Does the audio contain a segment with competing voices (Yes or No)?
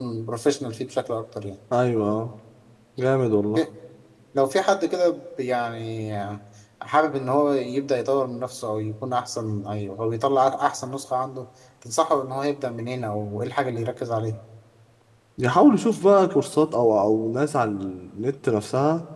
No